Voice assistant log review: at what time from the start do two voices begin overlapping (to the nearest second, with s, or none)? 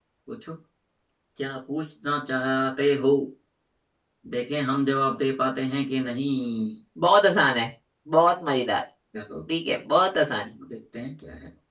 none